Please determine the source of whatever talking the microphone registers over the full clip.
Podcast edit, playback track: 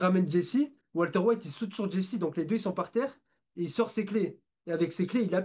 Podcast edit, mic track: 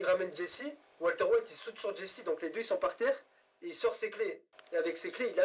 echo only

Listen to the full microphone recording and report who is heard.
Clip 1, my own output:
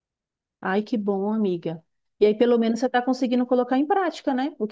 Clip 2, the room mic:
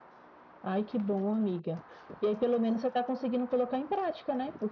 echo only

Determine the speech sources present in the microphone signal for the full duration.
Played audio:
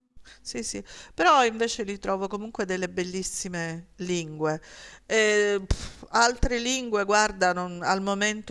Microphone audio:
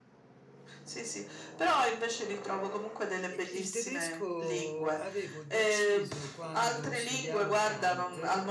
both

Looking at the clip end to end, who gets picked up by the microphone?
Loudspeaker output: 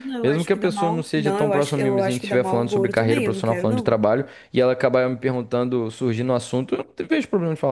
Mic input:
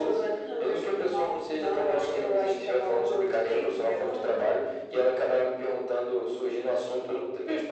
echo only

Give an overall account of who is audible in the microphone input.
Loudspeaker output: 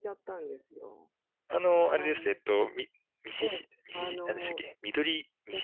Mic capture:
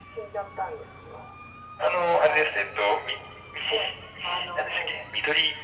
echo only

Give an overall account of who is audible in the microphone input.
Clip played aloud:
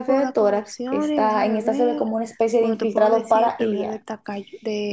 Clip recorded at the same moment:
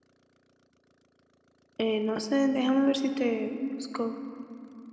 user only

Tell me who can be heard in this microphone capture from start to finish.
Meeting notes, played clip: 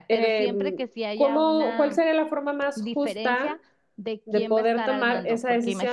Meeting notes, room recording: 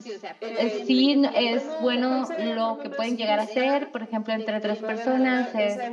both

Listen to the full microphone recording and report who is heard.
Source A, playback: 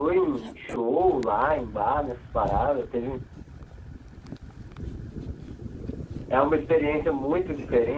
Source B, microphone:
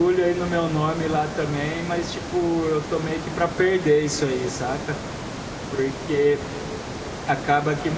user only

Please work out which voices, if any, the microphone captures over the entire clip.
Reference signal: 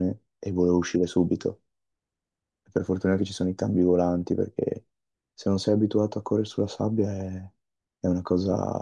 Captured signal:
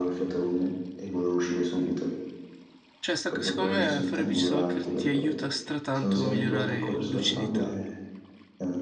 both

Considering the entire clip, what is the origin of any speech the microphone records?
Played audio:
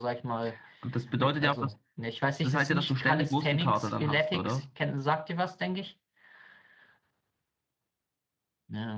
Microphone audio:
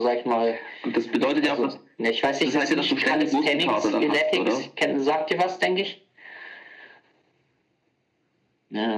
echo only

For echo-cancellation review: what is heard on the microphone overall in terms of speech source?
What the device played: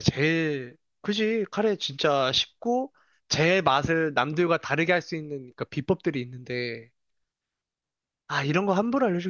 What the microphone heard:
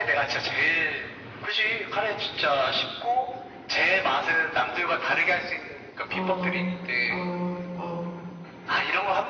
both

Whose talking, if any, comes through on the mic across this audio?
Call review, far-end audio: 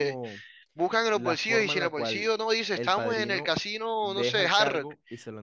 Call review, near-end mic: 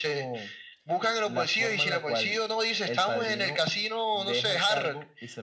echo only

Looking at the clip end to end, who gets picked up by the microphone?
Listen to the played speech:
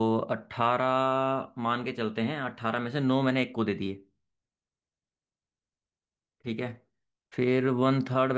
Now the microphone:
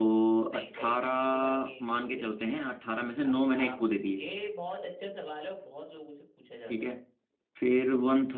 both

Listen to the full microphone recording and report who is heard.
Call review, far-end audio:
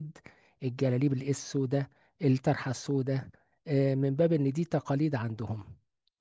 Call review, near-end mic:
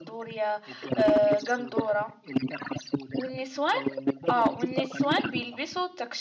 both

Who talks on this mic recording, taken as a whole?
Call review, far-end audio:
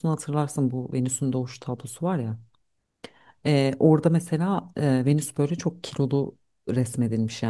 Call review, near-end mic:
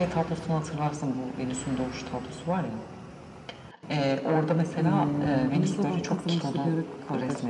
both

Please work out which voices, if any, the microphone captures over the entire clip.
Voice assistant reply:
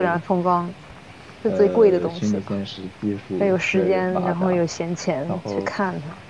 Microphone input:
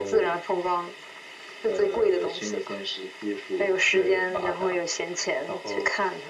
echo only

